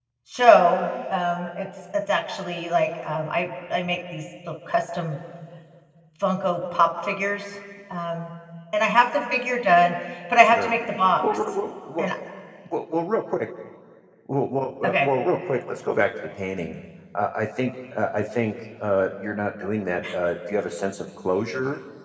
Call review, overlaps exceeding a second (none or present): none